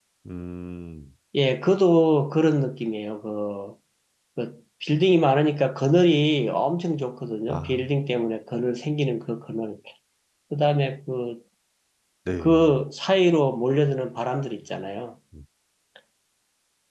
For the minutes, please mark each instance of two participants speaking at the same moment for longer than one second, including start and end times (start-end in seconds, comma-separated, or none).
none